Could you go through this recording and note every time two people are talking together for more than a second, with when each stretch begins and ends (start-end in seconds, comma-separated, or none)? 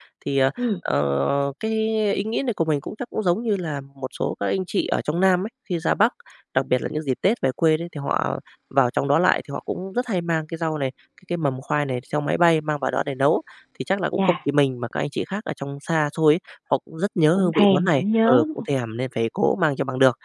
17.4-18.6